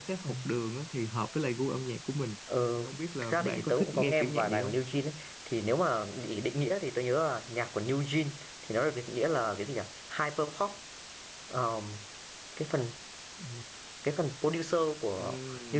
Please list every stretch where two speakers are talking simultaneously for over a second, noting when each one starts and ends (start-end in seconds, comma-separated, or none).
2.8-4.8